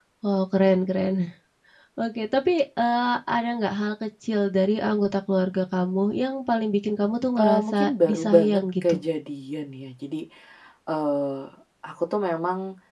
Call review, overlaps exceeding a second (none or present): present